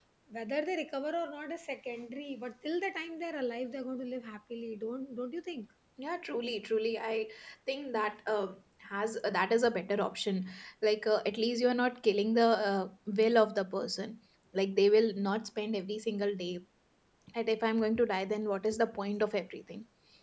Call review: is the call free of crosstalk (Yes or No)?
Yes